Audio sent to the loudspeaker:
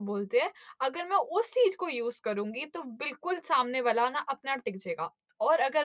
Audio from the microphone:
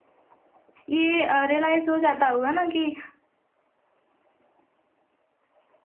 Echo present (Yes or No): No